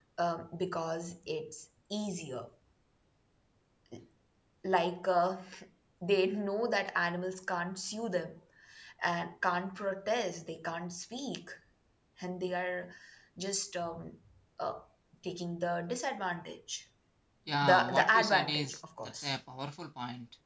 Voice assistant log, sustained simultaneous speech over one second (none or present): present